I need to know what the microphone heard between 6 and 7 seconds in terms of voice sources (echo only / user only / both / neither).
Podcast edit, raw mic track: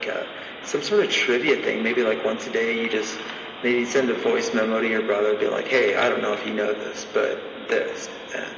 echo only